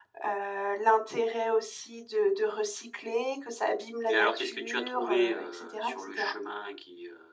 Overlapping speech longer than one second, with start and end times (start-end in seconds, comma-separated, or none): 4.1-6.3